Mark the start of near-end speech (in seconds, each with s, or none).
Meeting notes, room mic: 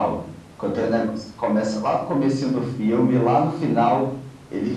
none